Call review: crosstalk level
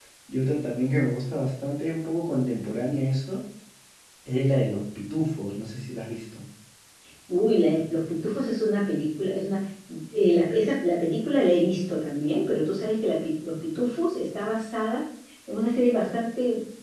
none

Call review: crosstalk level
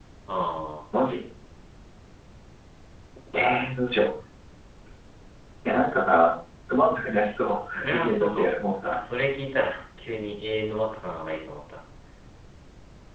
present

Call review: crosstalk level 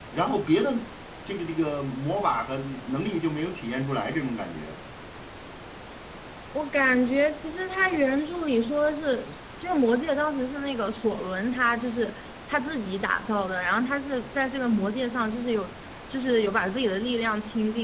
none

